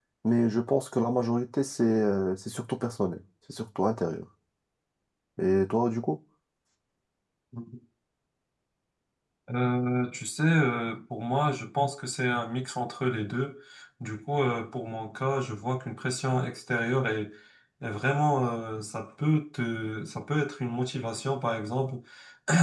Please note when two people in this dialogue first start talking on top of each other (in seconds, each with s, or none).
none